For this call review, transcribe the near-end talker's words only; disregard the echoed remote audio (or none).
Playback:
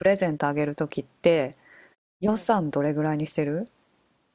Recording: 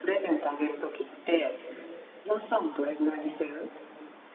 none